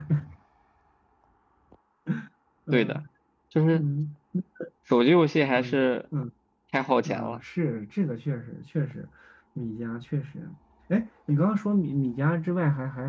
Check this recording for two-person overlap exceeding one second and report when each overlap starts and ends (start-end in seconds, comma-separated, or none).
none